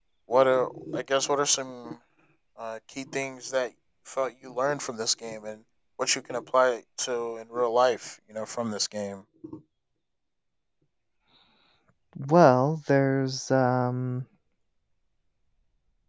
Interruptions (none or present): none